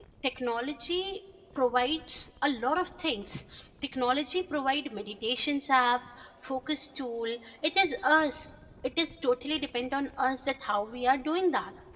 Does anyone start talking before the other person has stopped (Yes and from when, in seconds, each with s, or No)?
No